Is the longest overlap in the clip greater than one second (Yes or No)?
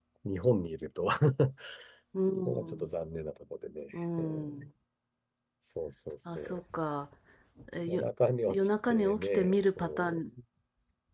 Yes